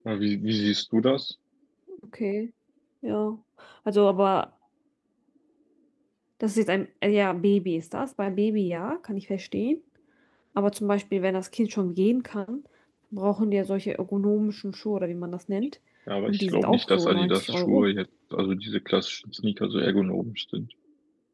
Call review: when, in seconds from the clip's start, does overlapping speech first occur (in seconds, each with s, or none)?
16.3 s